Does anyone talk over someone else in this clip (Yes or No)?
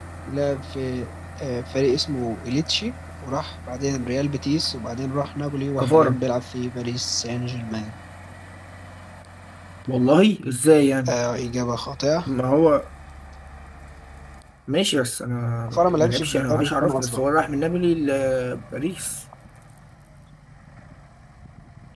Yes